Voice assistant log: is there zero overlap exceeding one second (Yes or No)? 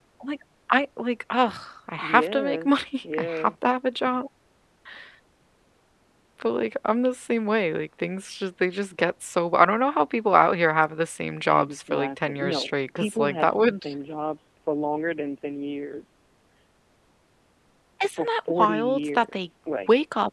No